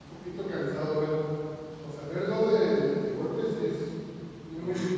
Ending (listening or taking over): taking over